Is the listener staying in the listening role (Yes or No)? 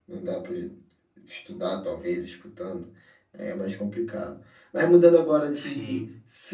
Yes